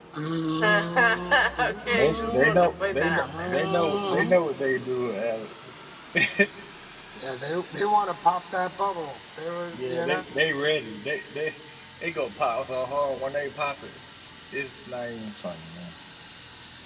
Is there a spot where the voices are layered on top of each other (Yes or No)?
Yes